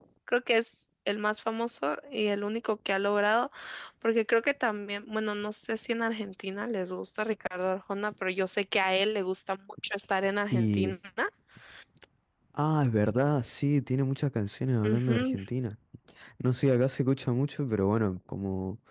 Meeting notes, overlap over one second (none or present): none